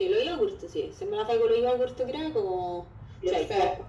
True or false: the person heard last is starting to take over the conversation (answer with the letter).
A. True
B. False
A